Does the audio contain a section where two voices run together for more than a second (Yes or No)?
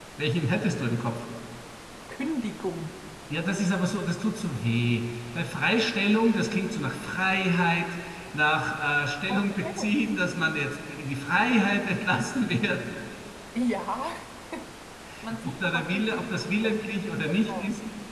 Yes